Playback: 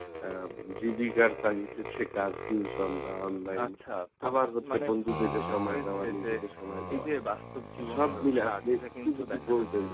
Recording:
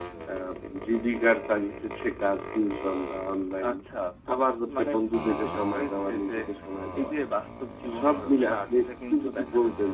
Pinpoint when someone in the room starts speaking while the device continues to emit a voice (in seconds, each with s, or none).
none